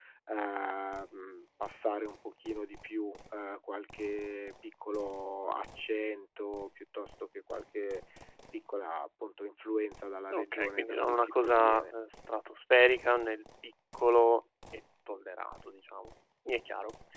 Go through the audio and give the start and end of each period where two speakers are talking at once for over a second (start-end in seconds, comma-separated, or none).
10.3-11.8